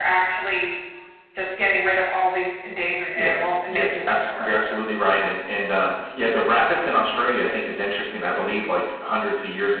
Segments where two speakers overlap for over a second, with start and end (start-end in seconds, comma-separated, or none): 3.2-4.5